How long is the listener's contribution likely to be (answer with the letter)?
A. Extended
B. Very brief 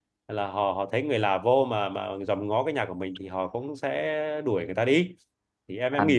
A